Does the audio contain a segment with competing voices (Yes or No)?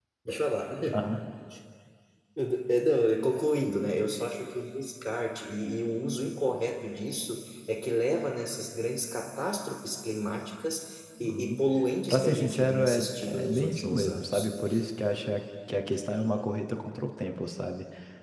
Yes